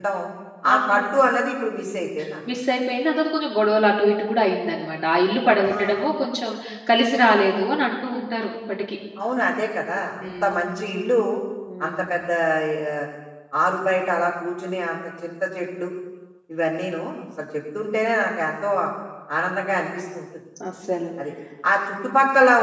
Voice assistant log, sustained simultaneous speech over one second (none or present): none